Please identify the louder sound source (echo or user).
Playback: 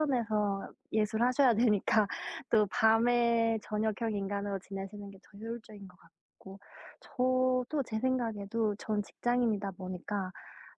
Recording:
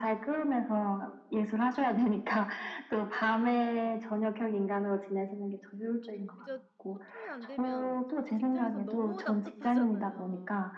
echo